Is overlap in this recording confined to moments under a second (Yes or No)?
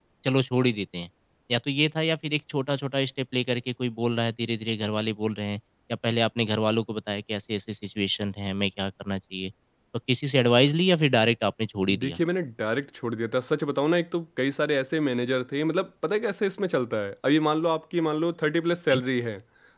Yes